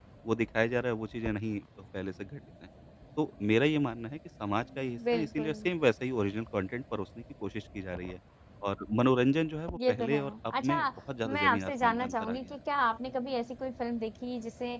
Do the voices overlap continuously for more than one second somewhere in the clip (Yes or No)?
Yes